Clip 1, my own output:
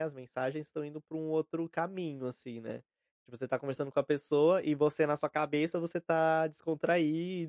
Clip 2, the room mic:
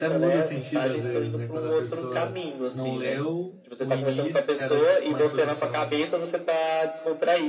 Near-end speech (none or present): present